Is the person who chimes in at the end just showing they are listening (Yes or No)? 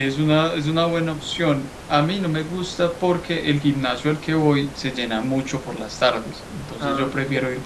Yes